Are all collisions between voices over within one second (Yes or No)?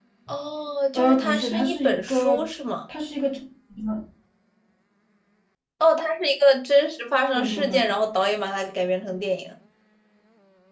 No